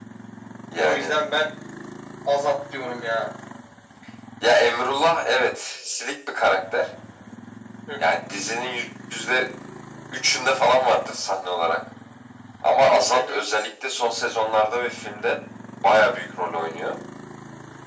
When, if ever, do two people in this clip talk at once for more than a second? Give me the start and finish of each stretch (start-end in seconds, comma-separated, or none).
none